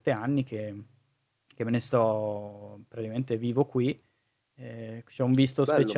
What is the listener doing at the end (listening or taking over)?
taking over